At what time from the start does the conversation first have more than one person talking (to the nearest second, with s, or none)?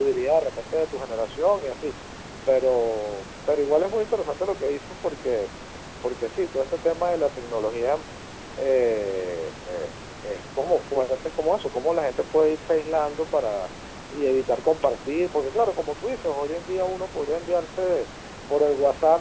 none